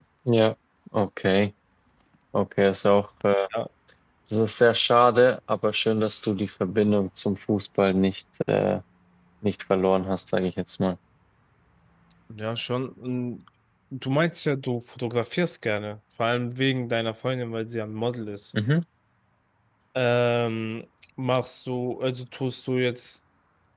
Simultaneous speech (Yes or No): No